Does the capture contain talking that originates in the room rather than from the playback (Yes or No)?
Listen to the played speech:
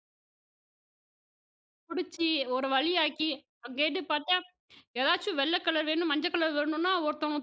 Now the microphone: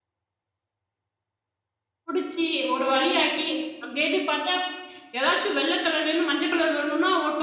No